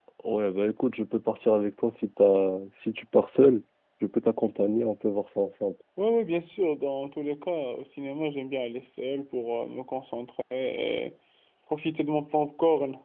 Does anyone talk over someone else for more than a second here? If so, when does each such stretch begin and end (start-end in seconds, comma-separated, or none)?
none